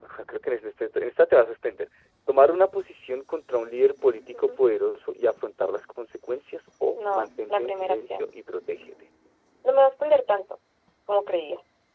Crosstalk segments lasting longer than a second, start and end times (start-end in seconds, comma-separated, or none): 7.0-8.3